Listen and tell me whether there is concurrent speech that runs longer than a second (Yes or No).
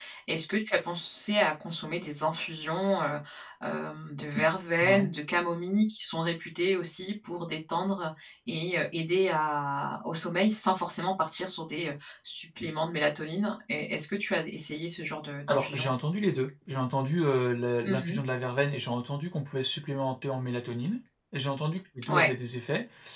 No